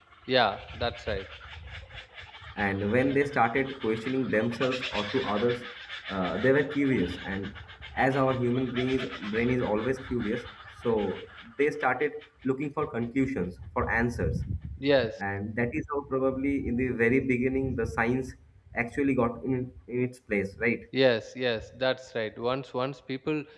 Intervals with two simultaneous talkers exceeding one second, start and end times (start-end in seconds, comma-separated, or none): none